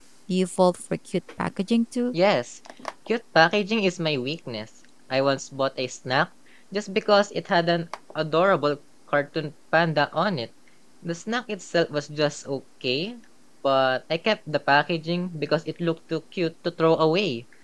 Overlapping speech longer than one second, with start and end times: none

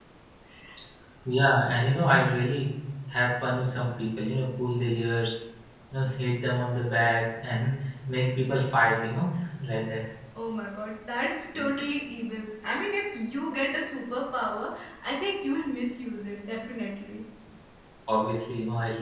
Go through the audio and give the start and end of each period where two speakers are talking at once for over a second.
none

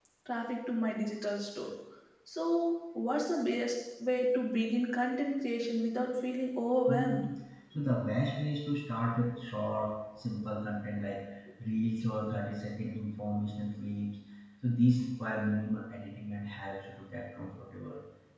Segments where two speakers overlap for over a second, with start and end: none

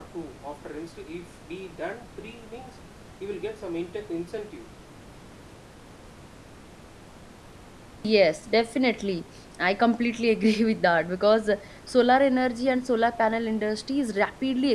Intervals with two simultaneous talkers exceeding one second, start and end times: none

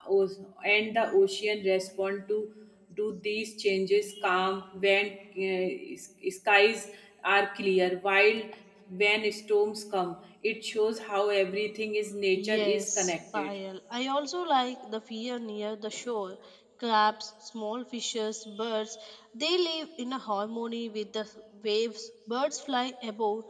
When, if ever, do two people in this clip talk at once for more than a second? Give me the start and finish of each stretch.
12.3-13.6

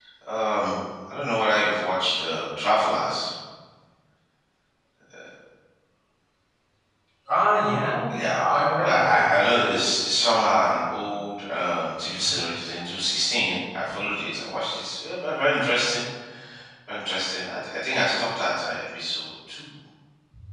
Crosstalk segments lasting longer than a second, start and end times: 8.1-9.3

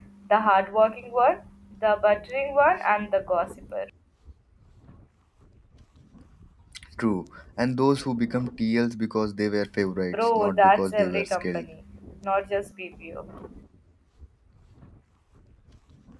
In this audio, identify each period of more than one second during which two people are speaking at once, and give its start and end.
10.1-11.7

